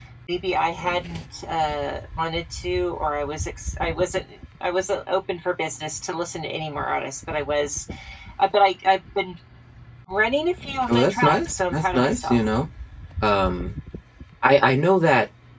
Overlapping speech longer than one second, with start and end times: 10.9-12.4

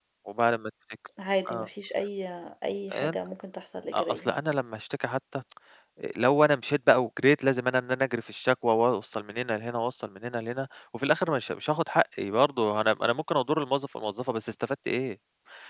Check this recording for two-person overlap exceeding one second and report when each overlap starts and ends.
none

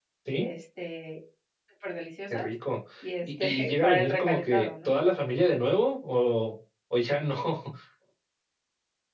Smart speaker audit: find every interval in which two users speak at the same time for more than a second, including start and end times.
3.4-4.9

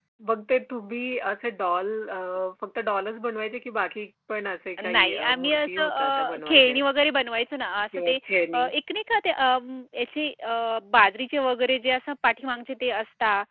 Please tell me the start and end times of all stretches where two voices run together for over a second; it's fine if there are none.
4.8-6.8

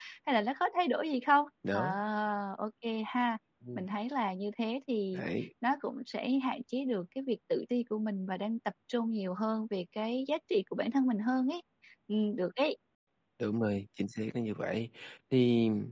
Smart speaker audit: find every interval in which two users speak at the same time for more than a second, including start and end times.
none

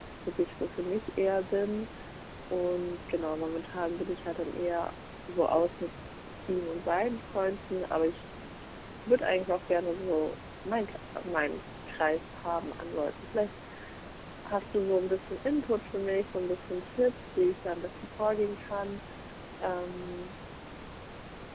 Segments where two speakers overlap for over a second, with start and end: none

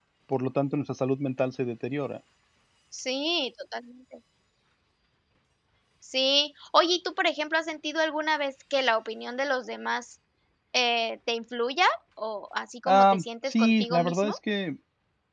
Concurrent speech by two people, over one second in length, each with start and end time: 12.9-14.3

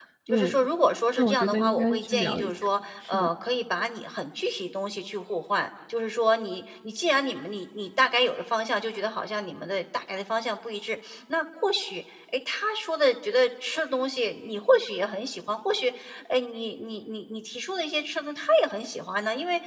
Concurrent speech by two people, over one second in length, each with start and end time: 1.1-2.5

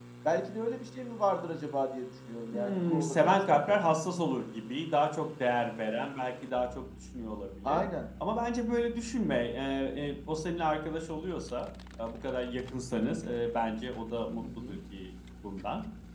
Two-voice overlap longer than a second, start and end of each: 2.5-3.8

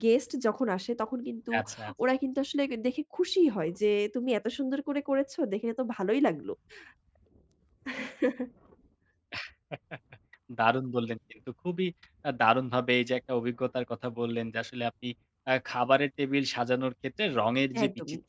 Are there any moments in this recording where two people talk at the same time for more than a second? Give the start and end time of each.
none

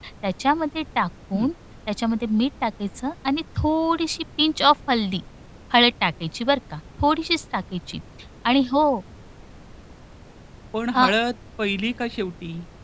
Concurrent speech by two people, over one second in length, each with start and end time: none

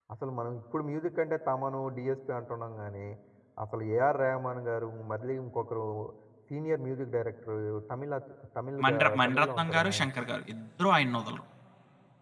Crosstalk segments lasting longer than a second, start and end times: 8.8-10.2

